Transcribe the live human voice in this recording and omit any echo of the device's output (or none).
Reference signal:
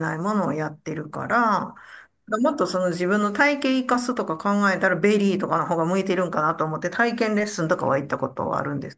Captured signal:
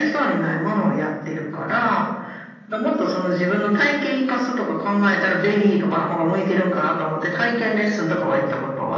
none